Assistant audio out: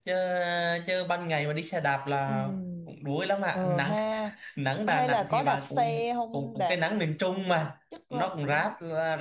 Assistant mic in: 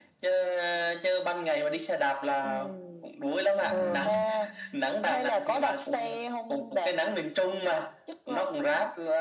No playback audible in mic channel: No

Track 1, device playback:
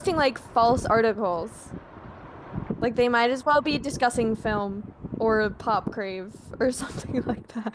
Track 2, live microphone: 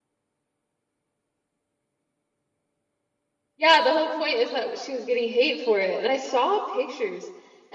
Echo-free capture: Yes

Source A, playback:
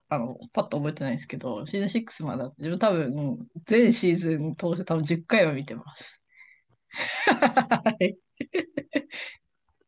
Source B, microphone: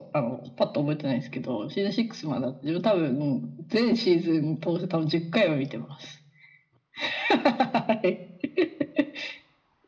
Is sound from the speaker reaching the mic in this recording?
Yes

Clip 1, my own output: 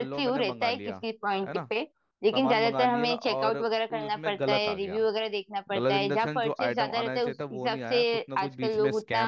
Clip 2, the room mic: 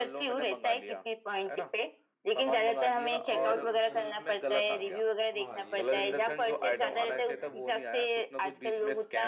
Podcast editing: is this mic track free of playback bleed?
No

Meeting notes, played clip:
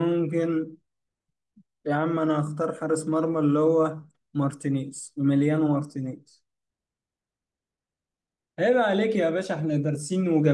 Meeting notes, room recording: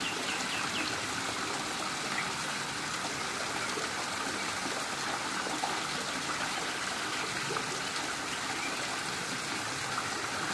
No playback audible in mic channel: Yes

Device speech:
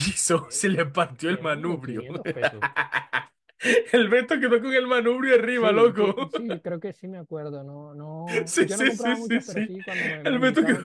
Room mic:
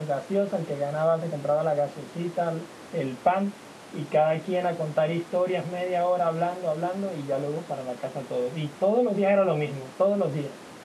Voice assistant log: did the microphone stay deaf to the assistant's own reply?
Yes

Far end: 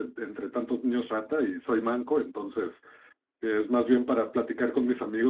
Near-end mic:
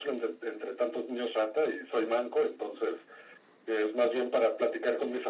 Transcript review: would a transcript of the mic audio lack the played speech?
No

